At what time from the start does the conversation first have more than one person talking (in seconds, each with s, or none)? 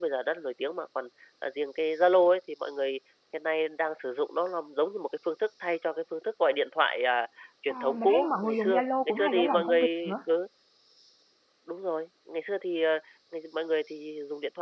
7.7 s